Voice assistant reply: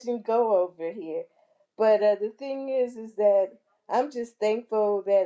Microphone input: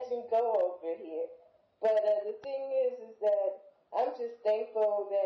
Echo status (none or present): present